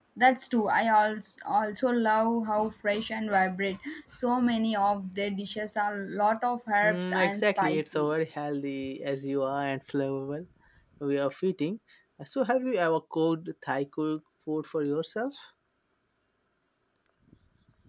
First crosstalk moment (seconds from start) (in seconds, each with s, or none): 6.8 s